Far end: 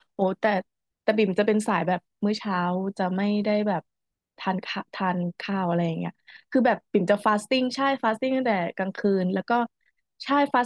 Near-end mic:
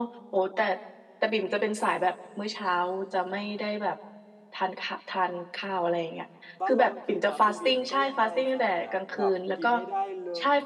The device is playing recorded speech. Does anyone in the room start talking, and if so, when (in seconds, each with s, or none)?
6.6 s